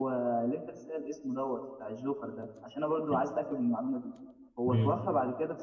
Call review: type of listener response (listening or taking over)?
listening